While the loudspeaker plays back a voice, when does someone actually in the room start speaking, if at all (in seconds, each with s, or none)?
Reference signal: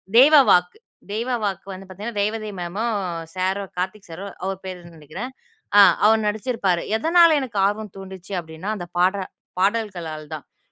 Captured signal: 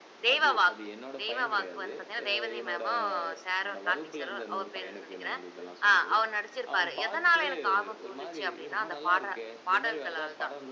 0.3 s